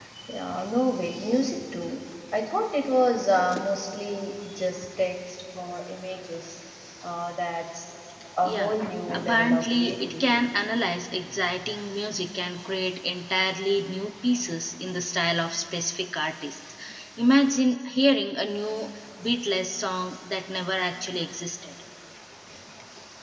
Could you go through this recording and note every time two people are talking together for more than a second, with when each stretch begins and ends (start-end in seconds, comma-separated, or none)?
8.4-10.4